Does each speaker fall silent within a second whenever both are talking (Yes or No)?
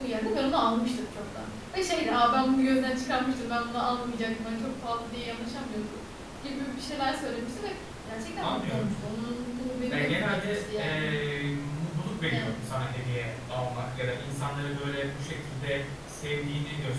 No